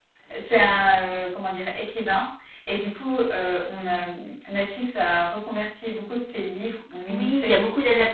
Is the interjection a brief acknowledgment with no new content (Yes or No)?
No